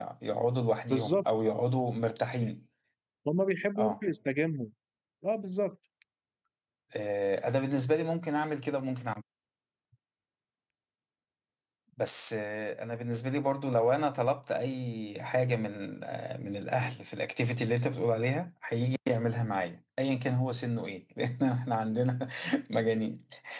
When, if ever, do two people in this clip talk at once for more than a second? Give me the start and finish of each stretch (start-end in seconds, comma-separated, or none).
none